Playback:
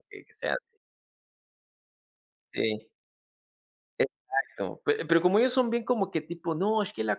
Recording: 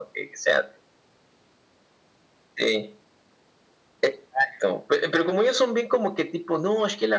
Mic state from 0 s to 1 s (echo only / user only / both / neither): echo only